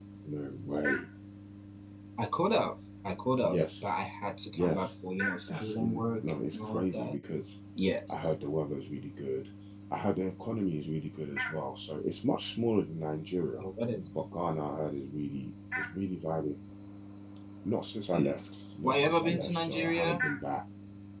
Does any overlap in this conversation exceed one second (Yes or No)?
Yes